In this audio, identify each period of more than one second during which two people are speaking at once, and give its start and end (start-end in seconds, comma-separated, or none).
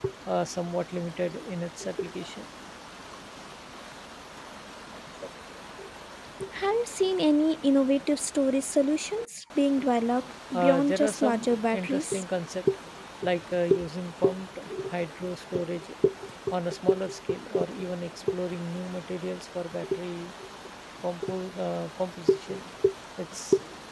10.5-12.2